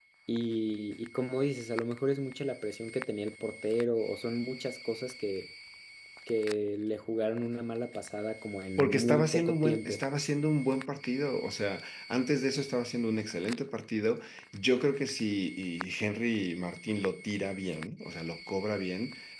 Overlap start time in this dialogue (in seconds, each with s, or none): 8.8 s